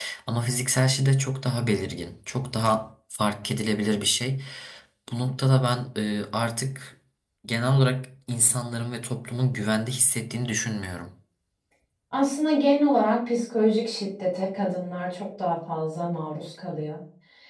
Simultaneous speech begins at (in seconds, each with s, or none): none